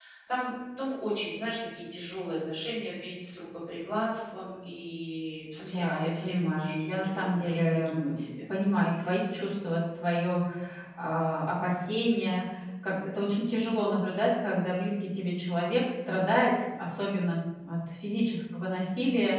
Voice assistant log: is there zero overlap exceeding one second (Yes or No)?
No